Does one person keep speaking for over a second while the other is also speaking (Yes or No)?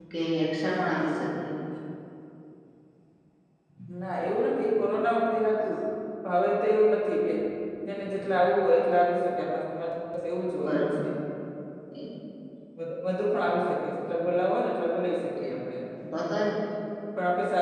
No